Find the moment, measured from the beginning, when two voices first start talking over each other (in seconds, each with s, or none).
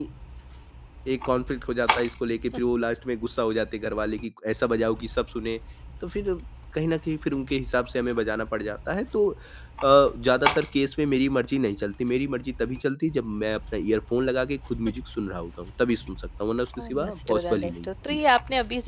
16.8 s